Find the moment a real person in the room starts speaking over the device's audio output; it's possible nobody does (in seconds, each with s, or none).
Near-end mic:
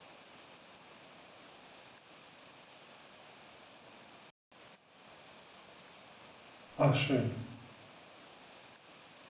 6.8 s